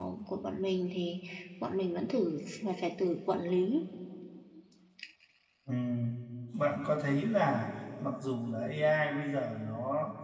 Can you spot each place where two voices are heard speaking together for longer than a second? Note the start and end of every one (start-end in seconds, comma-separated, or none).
none